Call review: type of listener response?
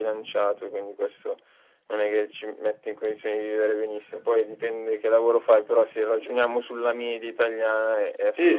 taking over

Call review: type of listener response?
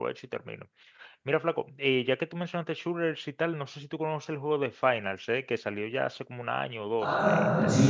taking over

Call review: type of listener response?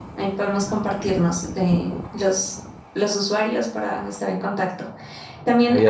listening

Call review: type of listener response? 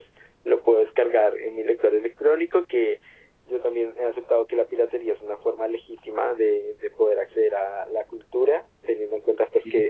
listening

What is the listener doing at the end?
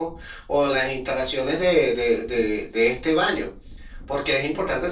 listening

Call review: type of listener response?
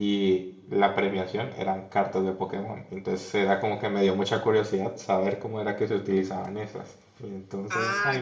taking over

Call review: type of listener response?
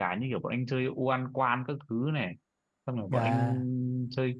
listening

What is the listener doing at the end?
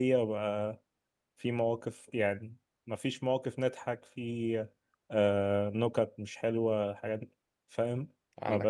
listening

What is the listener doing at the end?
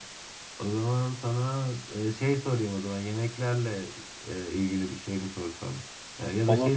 listening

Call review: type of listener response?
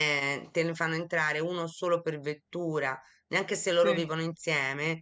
listening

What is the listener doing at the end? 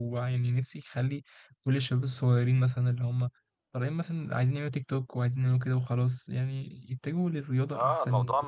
taking over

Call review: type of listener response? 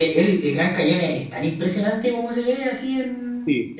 taking over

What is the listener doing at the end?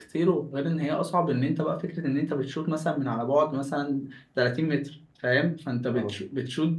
listening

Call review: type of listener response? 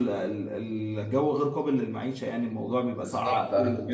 taking over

